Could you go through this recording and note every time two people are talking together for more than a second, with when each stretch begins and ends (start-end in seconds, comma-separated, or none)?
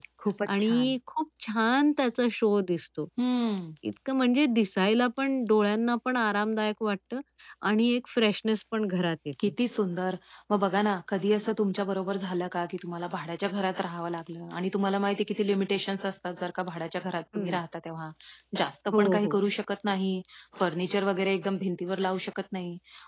none